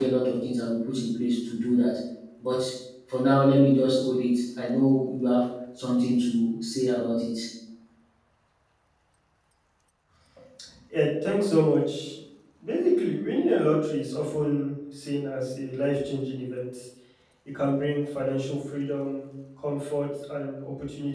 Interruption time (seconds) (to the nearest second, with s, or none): none